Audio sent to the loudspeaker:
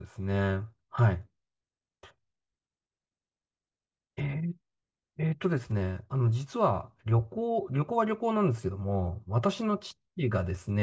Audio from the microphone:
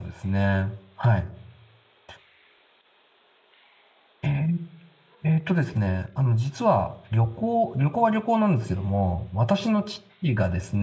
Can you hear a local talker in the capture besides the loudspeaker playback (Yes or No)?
No